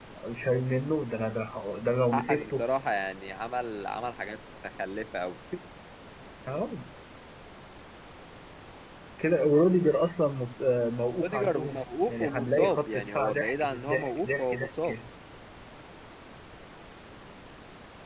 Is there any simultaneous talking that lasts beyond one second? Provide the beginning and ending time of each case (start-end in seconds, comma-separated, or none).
11.2-15.0